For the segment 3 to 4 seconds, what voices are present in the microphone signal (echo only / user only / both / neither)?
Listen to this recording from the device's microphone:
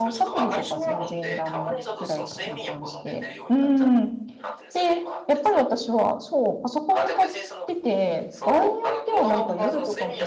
both